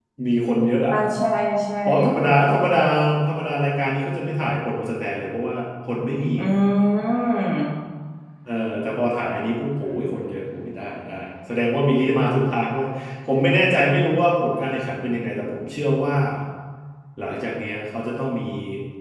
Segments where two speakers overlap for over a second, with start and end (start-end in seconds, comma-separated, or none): none